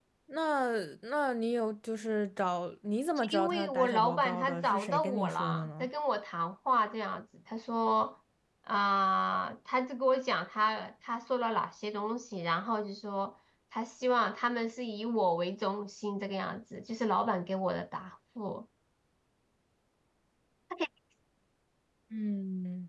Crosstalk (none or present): present